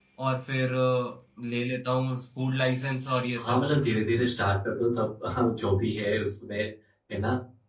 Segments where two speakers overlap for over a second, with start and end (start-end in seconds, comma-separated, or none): none